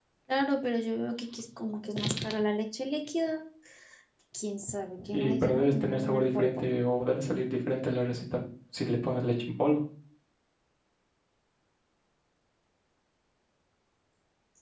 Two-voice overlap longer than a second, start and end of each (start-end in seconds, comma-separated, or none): 5.1-6.6